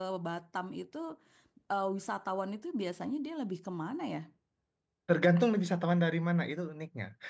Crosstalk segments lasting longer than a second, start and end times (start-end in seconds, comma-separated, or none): none